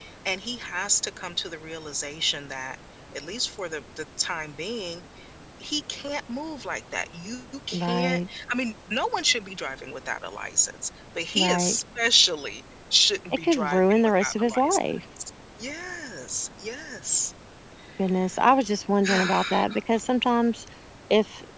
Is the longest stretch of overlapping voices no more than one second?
No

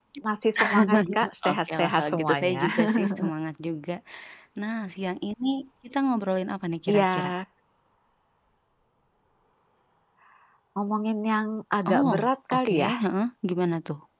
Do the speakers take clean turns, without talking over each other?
No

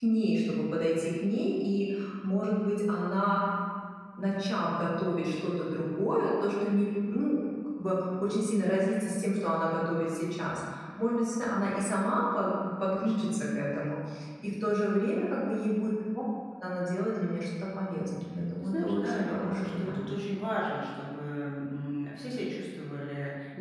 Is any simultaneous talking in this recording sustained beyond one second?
Yes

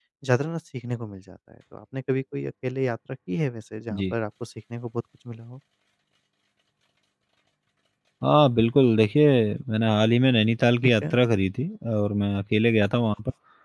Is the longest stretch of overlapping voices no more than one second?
Yes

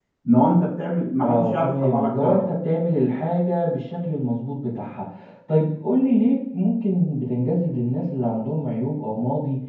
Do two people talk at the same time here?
Yes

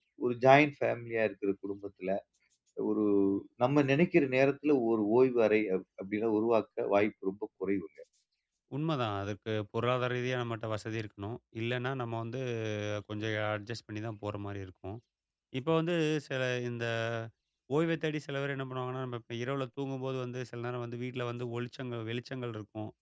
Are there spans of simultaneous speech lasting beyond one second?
No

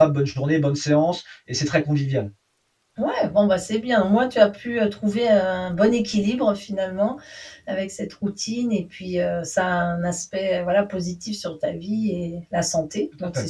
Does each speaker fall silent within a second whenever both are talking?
Yes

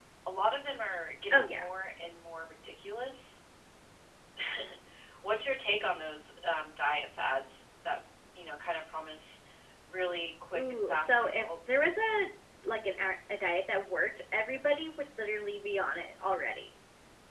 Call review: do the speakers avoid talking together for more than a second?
No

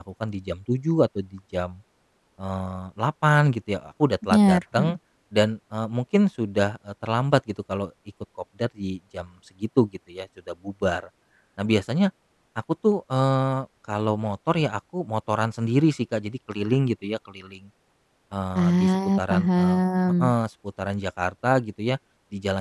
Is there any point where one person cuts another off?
Yes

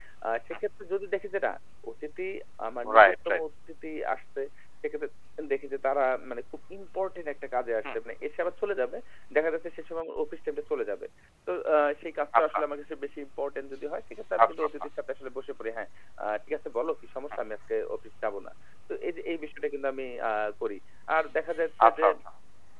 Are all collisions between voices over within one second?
Yes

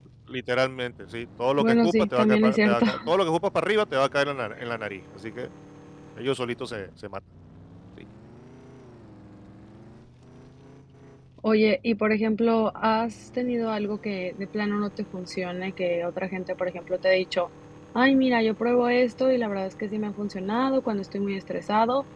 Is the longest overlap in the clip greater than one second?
Yes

